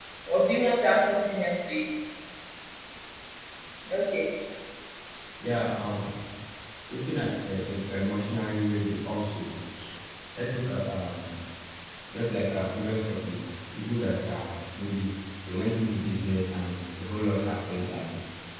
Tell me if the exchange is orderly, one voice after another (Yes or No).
Yes